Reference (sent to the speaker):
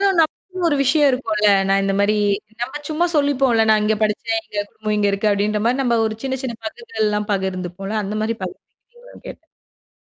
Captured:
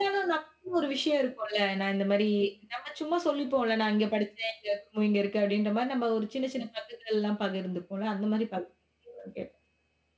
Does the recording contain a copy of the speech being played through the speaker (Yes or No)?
Yes